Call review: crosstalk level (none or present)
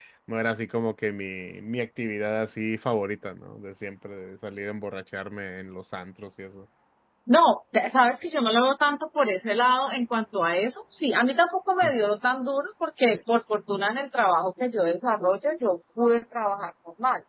none